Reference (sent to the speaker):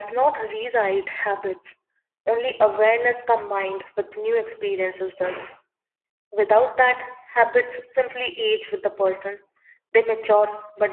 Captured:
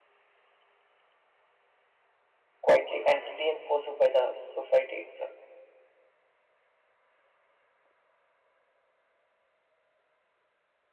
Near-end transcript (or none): quietly and reinforced by the society itself.